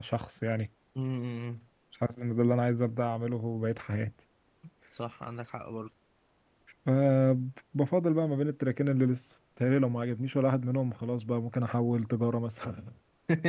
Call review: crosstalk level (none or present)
none